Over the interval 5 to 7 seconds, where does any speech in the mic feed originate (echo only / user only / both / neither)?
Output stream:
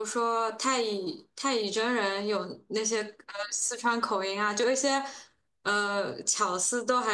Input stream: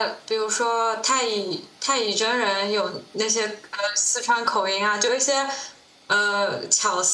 echo only